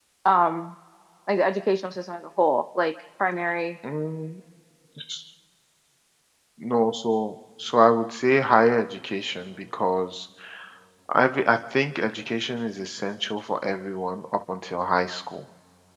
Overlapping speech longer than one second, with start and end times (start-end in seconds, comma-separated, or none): none